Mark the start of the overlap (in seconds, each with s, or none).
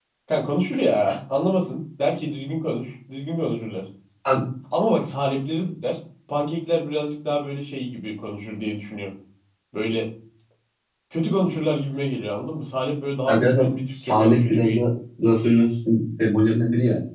13.3 s